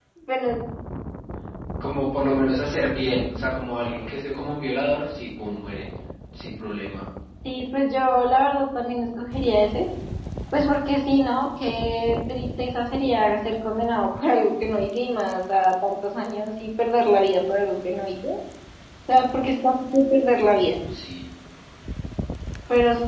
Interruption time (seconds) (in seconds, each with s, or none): none